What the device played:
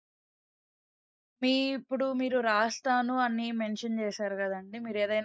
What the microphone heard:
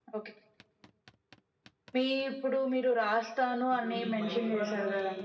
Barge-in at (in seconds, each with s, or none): 3.7 s